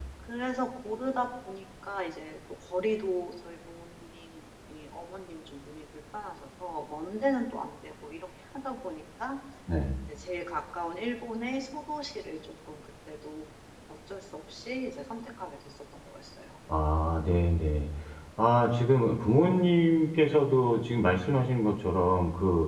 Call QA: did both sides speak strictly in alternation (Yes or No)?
Yes